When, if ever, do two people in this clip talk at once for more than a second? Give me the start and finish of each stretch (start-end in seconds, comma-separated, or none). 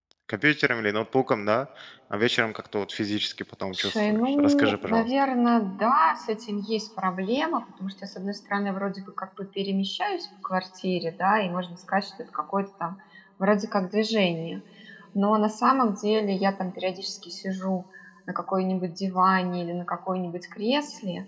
3.7-5.1